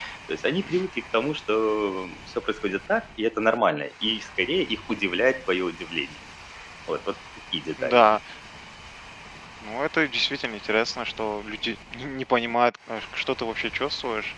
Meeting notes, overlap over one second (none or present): none